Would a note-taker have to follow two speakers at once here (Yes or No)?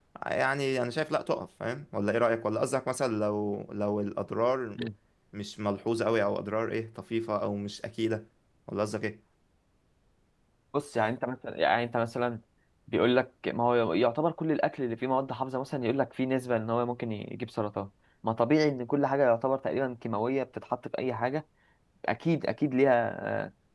No